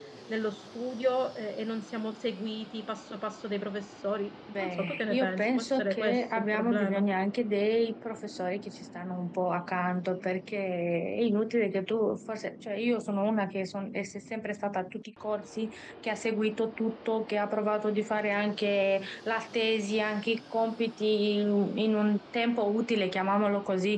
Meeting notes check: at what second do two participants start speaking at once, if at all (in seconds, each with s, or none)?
4.5 s